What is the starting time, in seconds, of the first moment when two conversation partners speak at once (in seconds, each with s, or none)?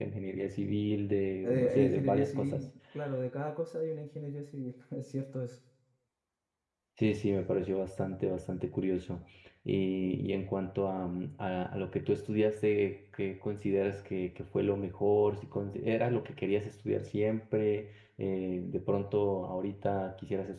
1.4 s